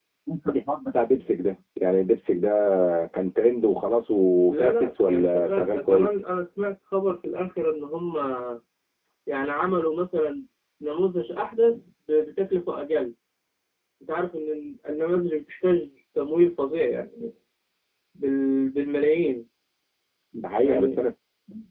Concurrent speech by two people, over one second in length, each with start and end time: 4.5-6.1

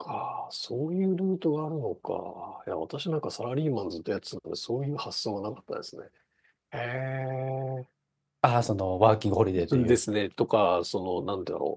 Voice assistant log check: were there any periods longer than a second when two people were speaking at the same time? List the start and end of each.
none

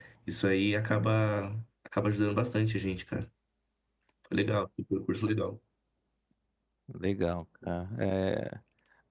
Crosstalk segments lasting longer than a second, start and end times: none

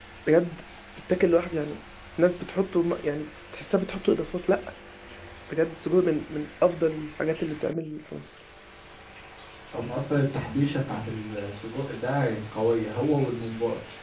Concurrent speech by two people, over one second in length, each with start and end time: none

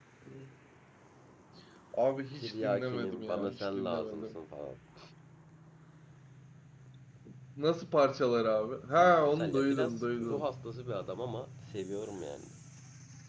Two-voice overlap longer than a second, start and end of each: 2.3-4.3, 9.0-10.5

